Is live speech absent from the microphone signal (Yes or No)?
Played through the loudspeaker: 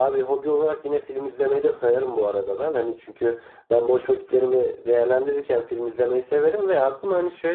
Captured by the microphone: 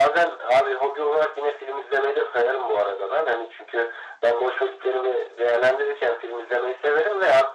Yes